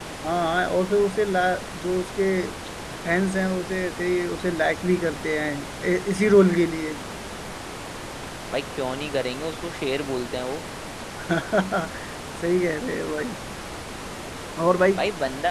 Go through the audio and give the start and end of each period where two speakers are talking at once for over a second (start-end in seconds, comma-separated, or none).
none